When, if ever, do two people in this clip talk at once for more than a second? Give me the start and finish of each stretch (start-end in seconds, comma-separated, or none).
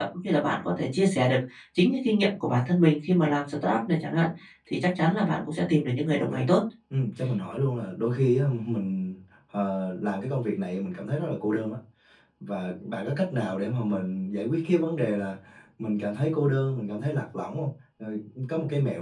none